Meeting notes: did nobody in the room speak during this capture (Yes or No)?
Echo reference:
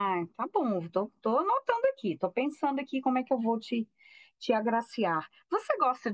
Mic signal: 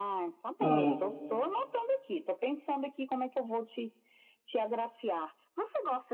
No